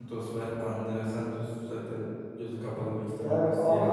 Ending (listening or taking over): taking over